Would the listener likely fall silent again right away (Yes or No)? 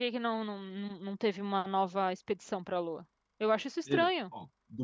No